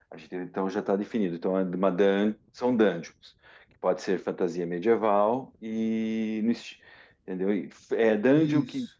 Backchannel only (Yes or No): Yes